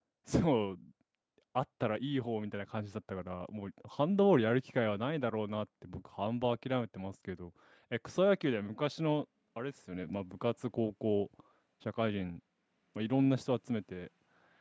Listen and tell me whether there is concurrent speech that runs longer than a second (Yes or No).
No